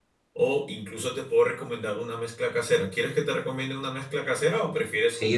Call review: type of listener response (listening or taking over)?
taking over